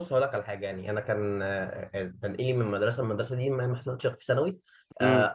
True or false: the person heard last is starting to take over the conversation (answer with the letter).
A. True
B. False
B